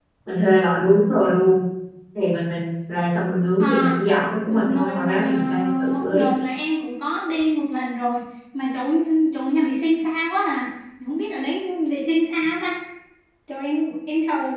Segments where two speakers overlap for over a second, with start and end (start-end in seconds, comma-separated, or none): 4.5-6.3